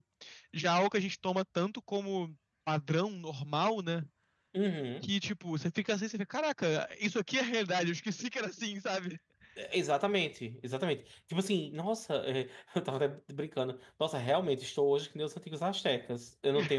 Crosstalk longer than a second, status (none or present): none